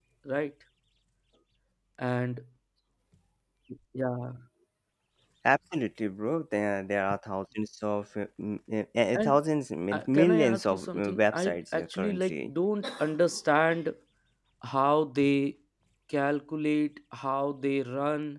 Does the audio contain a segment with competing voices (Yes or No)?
Yes